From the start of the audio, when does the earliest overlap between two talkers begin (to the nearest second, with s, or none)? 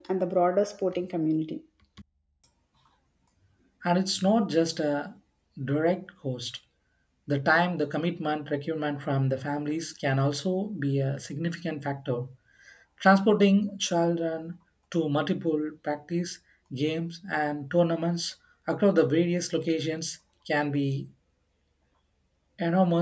none